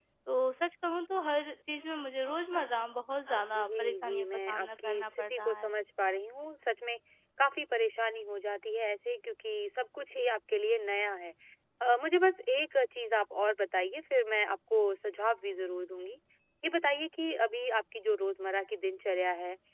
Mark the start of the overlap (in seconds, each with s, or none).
3.5 s